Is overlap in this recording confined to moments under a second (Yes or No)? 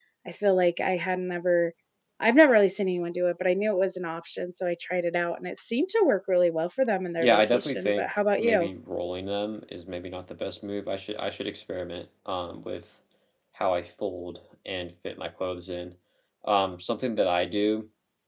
No